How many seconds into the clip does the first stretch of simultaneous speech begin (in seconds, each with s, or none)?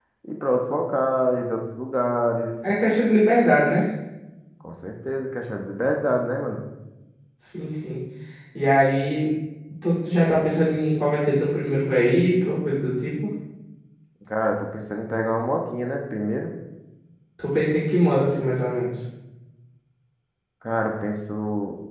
none